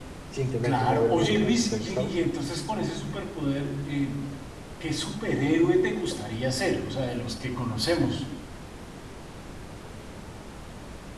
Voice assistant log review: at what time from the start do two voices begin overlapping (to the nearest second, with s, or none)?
1 s